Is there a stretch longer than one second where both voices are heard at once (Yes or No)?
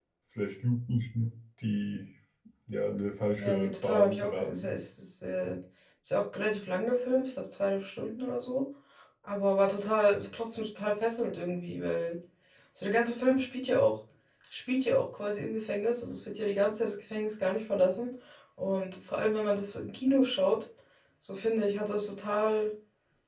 Yes